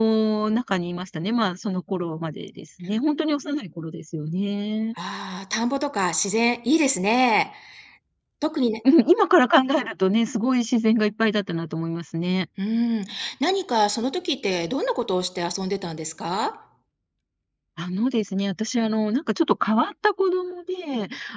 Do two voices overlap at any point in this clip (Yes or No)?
No